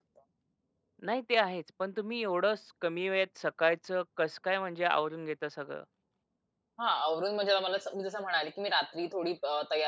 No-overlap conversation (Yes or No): Yes